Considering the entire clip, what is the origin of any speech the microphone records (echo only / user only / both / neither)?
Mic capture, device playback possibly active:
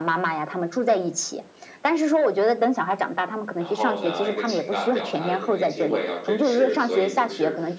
both